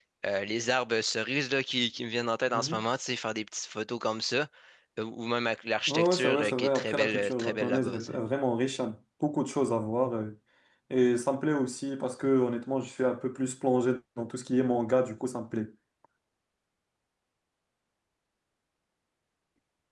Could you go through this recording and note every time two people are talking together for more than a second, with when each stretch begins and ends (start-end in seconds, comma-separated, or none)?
5.9-8.2